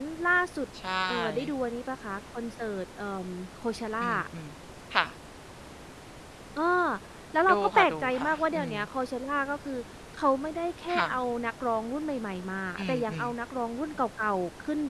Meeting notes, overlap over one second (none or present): present